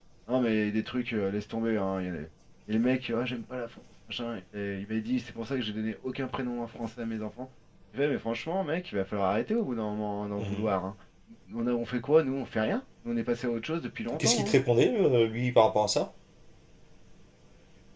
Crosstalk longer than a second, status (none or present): none